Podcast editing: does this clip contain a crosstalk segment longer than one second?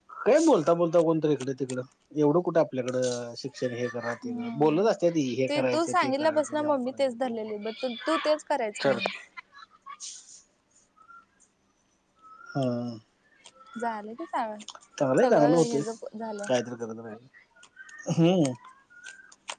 Yes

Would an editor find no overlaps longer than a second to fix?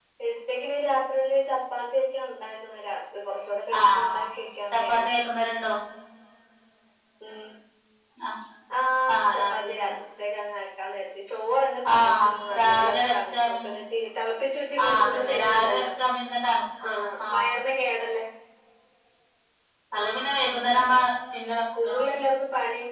No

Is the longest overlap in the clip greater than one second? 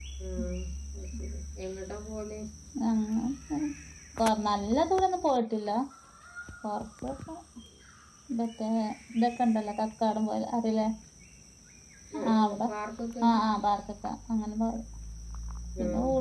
No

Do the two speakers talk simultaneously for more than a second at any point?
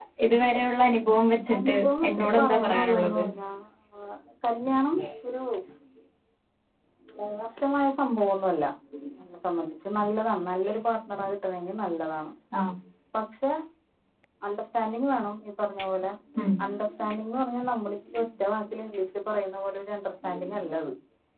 Yes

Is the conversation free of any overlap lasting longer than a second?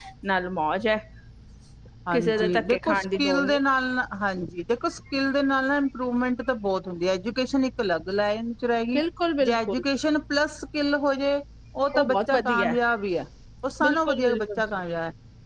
No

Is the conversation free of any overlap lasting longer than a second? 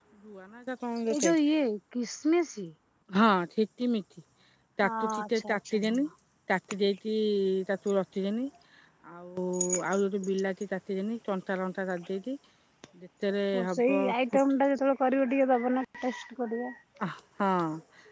No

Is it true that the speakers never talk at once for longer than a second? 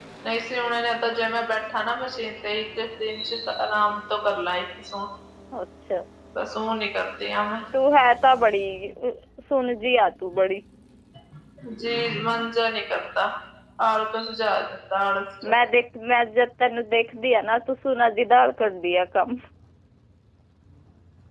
Yes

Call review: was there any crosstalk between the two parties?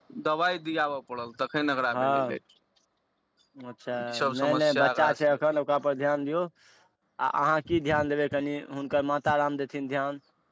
Yes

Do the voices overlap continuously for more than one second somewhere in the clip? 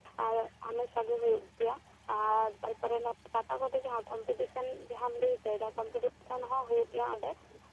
No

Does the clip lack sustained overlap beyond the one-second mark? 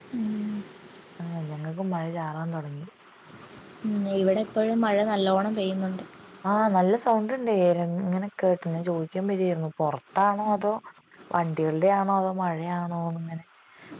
Yes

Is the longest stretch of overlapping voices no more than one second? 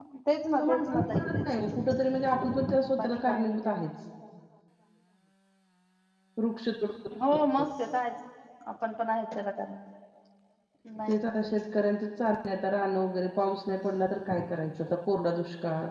No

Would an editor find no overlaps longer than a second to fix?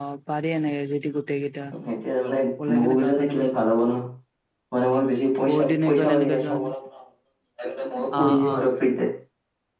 No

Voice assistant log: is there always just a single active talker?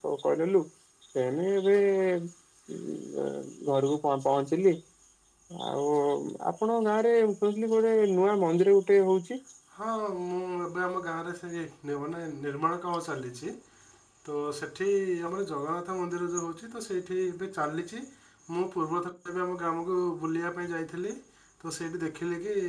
Yes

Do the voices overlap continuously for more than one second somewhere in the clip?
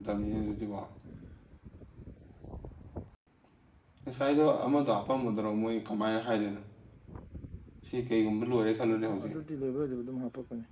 No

